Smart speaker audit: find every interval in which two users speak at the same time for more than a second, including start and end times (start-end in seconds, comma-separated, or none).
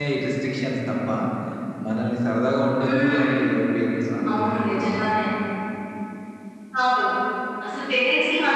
none